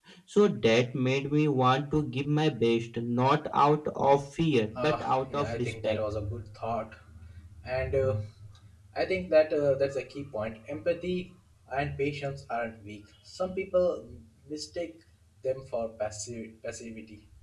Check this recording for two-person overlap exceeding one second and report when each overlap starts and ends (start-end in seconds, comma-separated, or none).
4.8-6.0